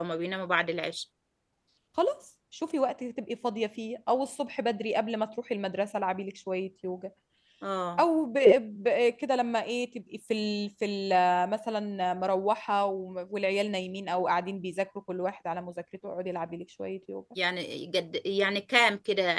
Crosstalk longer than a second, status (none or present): none